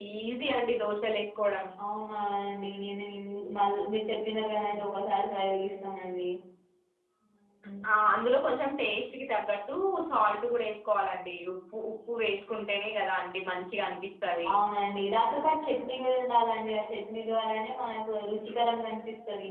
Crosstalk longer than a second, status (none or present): none